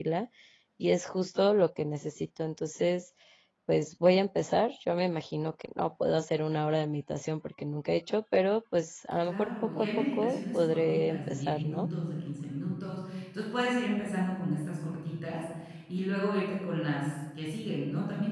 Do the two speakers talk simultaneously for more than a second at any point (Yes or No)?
Yes